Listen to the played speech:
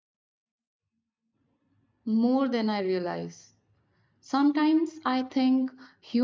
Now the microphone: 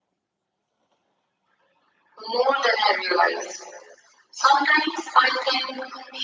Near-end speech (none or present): none